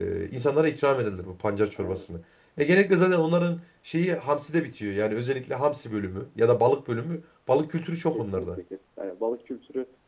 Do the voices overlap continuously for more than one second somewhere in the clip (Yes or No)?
No